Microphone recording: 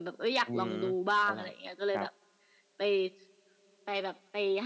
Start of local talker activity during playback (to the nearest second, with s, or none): 0 s